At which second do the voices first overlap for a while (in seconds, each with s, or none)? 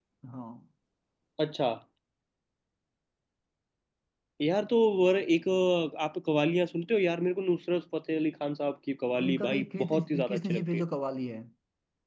9.2 s